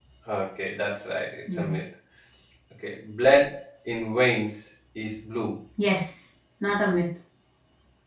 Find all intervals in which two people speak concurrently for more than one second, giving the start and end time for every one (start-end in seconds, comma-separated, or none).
none